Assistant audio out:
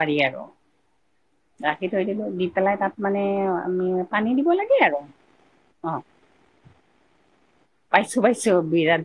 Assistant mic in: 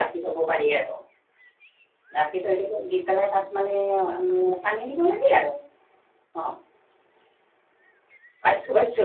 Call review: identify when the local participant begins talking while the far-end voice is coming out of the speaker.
none

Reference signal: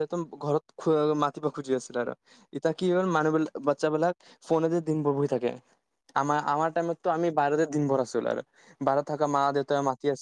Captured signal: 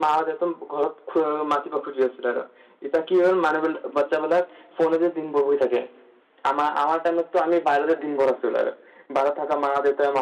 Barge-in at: none

